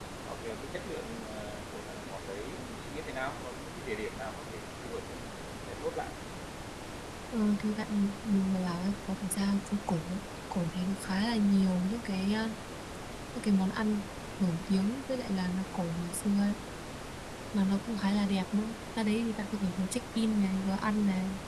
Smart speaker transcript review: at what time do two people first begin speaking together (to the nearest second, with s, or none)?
none